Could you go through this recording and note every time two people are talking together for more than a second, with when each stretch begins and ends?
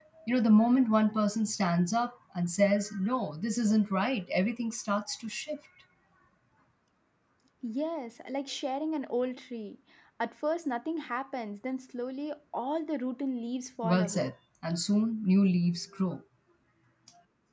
none

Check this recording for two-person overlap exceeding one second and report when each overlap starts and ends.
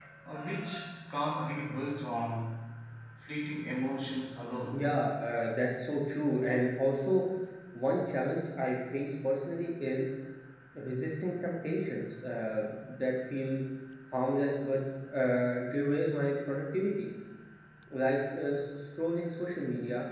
none

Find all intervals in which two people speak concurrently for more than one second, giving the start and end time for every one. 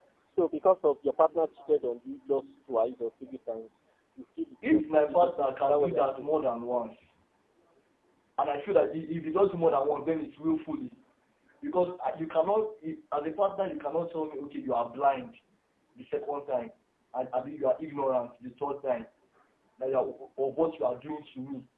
4.7-6.3

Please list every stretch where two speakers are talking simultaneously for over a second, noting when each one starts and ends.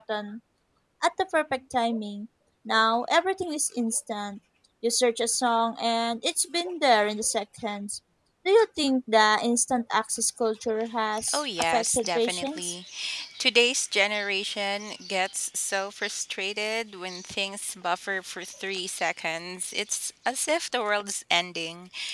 11.3-12.8

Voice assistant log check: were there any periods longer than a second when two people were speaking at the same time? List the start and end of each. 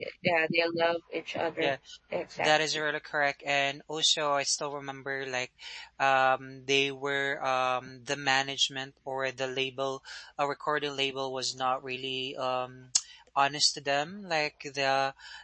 none

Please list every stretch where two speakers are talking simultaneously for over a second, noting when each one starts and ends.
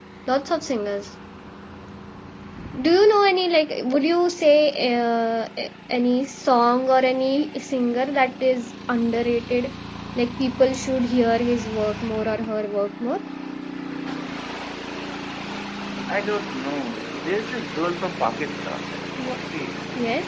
none

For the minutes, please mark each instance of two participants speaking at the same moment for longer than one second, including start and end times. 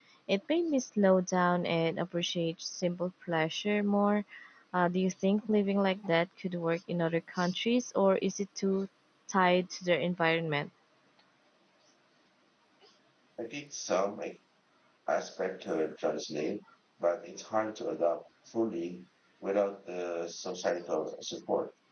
none

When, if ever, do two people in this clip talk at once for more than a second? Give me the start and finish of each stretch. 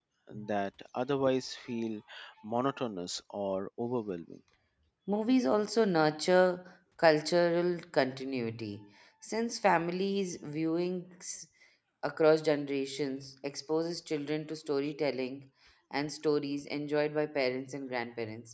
none

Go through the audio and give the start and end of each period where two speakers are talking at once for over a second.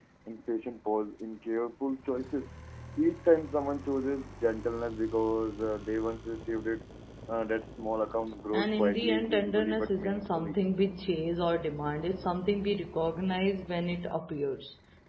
8.5-10.6

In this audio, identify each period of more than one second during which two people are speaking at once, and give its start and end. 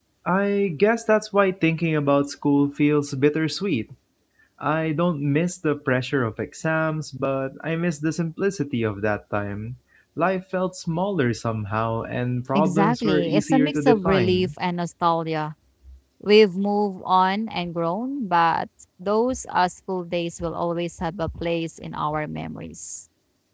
12.5-14.5

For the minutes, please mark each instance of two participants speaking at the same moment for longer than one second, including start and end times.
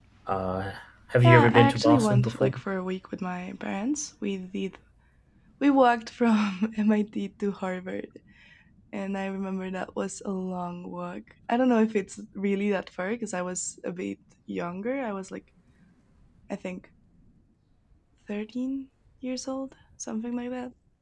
1.2-2.5

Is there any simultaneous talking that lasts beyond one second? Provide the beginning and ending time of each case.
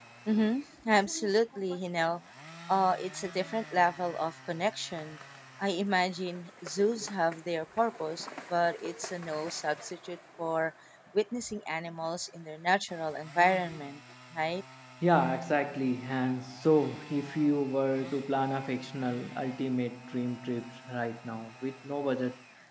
none

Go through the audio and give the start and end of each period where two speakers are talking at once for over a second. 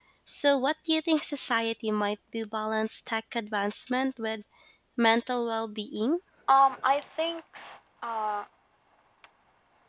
none

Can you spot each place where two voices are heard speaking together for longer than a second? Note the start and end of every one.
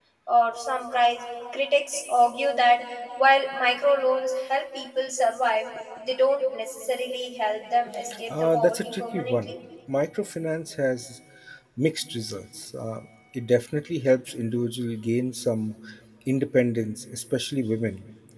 8.3-9.5

